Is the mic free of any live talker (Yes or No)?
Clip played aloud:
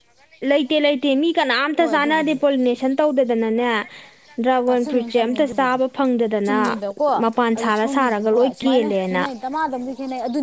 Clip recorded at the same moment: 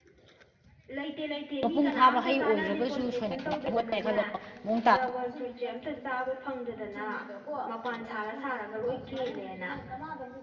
No